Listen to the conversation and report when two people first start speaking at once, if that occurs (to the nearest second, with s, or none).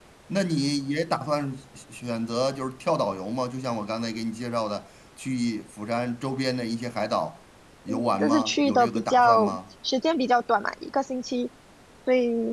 8 s